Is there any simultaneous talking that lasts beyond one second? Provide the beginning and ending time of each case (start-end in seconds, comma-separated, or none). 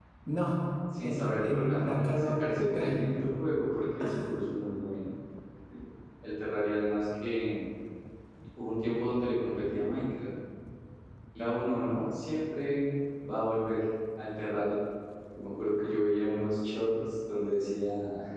1.0-3.0